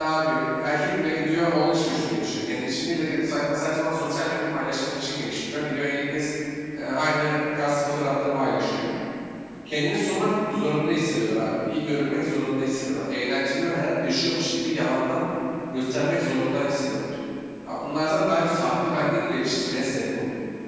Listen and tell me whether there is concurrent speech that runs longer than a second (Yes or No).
No